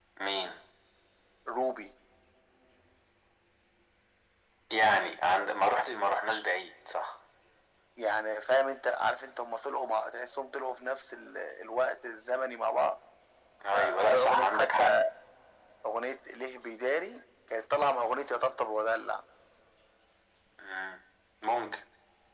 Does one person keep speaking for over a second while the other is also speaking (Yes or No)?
Yes